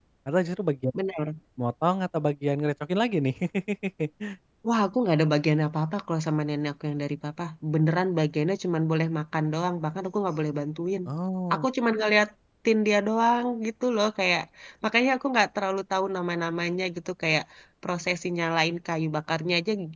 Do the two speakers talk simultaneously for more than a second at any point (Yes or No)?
No